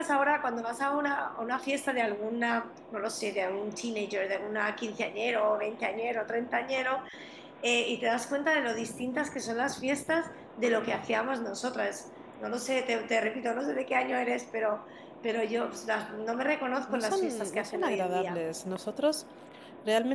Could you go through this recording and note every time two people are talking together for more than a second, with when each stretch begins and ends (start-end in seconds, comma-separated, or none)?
16.9-18.4